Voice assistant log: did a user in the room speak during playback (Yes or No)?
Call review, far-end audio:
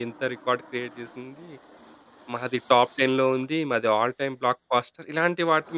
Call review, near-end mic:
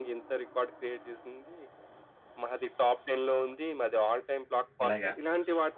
Yes